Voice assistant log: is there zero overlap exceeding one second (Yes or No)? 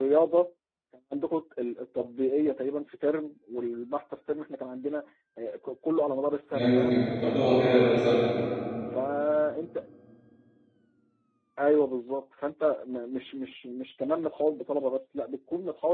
Yes